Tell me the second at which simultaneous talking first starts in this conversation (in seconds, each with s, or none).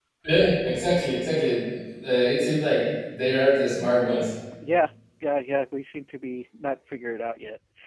none